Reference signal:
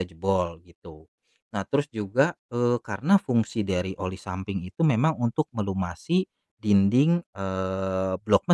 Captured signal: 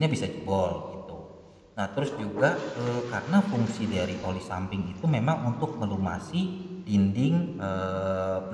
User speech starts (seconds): none

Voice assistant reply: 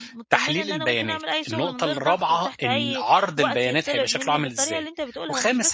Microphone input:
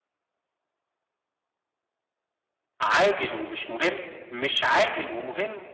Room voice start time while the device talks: 2.8 s

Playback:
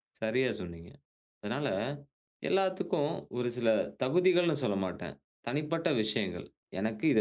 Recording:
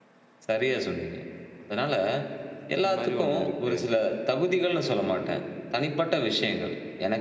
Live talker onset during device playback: 2.8 s

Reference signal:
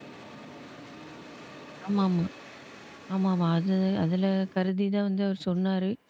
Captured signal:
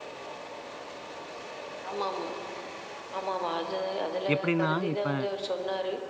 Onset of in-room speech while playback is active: 4.3 s

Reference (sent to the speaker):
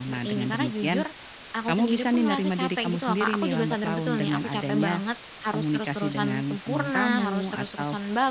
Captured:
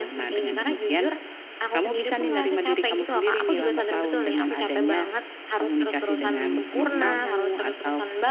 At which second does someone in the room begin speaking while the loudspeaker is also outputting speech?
6.2 s

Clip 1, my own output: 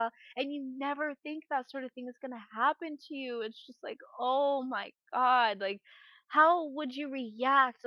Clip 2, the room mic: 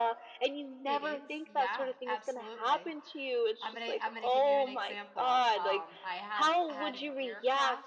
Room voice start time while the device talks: 0.8 s

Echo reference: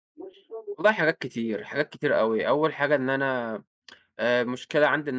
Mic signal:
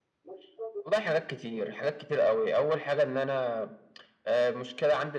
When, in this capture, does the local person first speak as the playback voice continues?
none

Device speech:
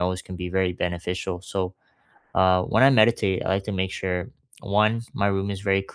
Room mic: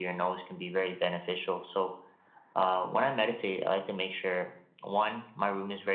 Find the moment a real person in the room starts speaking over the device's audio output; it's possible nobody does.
none

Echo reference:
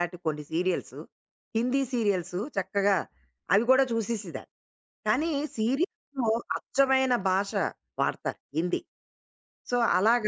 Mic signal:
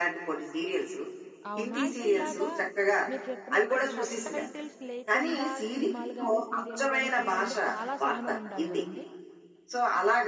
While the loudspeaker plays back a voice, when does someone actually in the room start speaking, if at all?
1.5 s

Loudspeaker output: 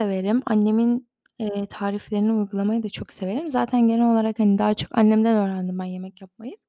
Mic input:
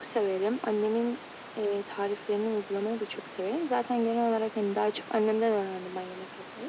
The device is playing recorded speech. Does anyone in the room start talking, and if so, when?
none

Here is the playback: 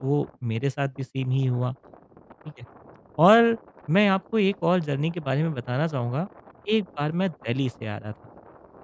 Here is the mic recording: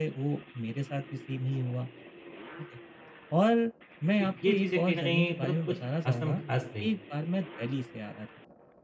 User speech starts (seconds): 4.2 s

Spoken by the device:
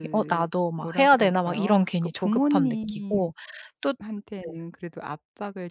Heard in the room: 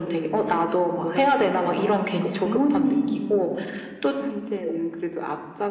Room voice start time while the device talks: none

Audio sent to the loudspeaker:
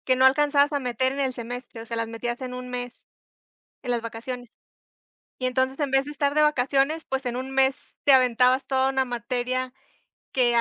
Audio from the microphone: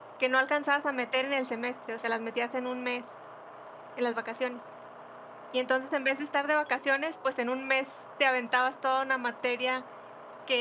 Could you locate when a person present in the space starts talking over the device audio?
none

